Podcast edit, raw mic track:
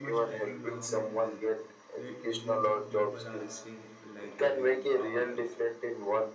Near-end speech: present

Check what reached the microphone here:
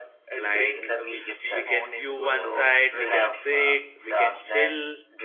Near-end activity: present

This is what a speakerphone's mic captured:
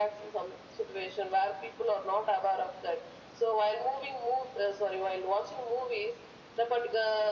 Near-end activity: none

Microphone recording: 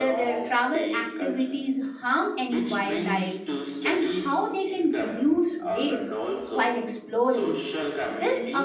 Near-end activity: present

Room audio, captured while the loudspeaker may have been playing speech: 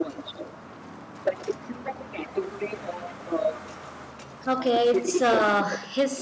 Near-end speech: present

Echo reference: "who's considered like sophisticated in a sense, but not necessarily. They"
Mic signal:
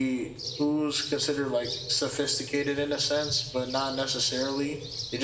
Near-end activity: none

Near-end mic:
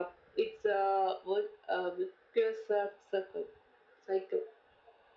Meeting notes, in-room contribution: none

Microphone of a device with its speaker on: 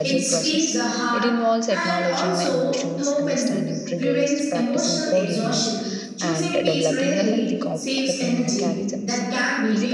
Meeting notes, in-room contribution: present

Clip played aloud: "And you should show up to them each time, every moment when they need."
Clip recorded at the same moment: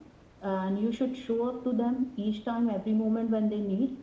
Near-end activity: none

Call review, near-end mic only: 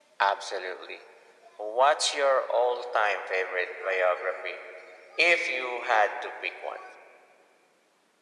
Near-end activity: none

